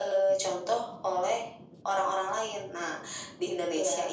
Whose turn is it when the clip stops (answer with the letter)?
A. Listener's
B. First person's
B